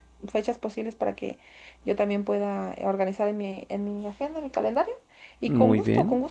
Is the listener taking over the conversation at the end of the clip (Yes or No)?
No